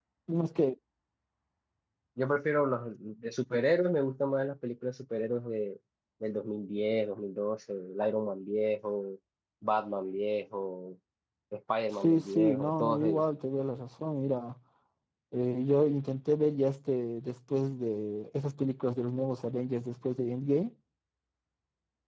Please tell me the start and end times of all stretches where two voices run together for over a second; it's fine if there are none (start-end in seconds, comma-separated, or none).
12.0-13.2